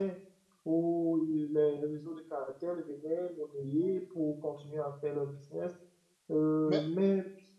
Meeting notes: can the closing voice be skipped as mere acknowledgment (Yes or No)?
Yes